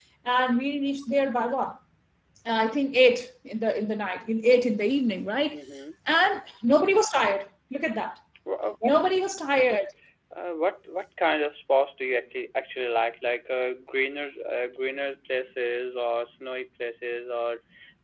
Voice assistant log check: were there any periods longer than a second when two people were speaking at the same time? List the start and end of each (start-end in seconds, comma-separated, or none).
none